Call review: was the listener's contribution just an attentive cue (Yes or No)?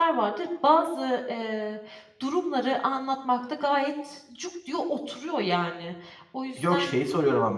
No